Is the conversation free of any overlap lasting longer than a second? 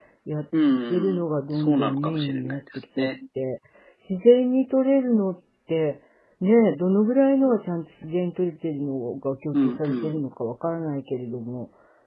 No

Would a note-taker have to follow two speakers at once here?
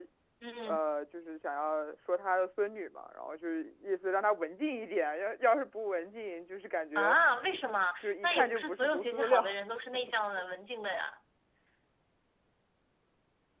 Yes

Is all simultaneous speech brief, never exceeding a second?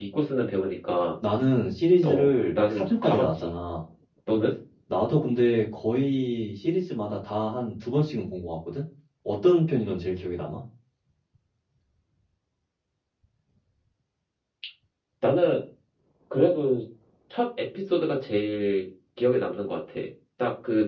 No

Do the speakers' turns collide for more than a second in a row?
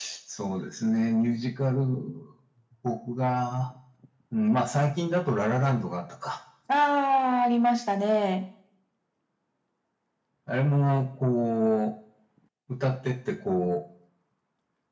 No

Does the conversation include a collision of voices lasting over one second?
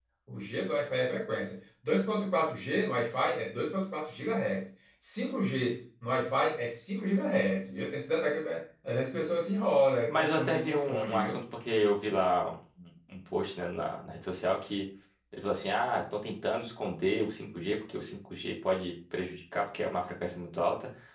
Yes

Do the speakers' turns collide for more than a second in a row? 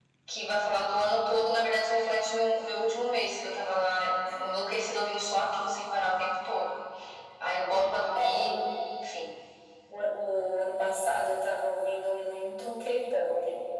No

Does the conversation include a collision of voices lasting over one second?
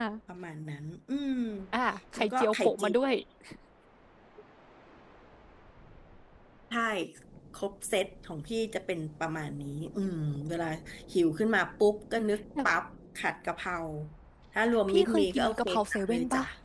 Yes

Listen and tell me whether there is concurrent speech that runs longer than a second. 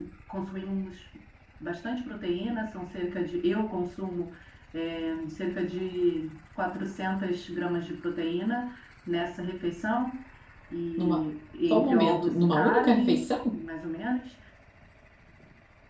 Yes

